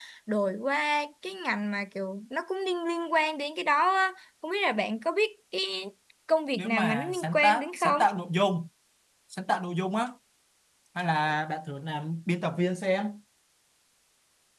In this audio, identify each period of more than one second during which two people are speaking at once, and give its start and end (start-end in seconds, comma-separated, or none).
6.6-8.0